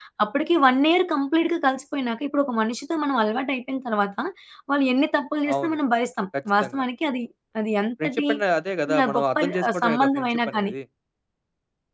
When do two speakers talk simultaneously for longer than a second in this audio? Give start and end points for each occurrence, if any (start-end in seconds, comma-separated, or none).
8.9-10.7